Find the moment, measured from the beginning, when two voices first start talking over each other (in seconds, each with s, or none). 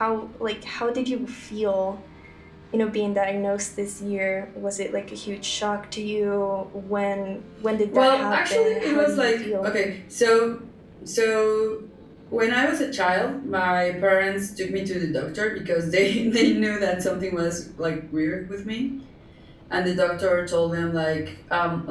7.9 s